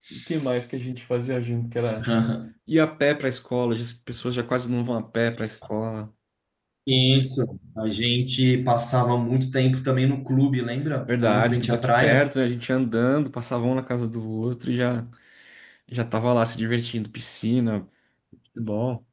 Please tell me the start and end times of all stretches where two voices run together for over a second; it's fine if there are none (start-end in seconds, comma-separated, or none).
11.1-12.3